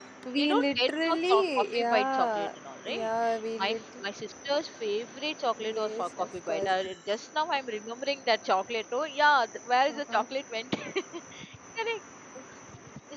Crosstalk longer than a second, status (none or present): present